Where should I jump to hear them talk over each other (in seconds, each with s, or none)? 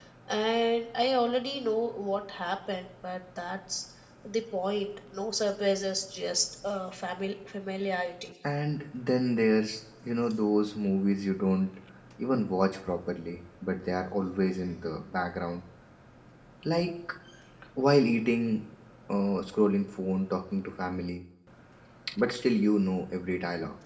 none